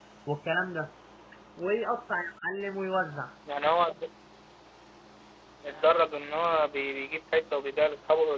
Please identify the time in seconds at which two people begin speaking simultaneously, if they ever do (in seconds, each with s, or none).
none